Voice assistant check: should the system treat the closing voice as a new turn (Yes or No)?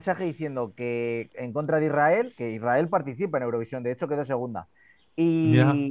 No